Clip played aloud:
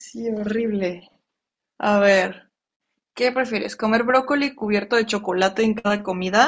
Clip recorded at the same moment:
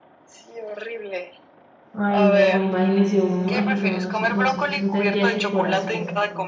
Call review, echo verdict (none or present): present